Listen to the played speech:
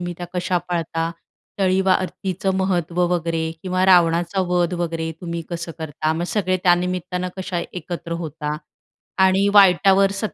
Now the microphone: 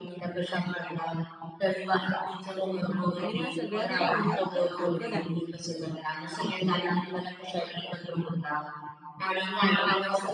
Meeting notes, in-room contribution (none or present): present